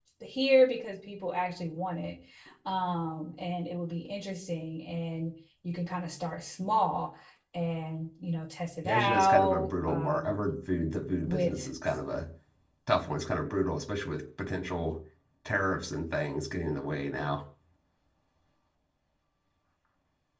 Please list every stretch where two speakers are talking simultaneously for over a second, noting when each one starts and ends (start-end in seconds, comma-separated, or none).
8.8-10.4